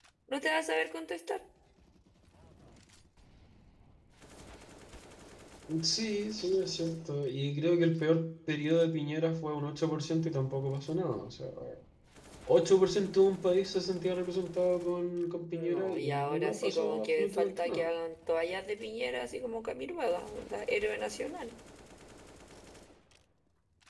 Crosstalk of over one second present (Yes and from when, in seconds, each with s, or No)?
Yes, from 15.5 s